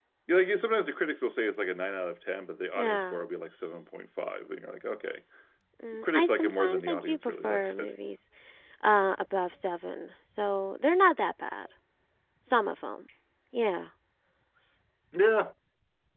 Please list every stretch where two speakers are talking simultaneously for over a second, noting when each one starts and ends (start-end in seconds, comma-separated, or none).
6.0-7.9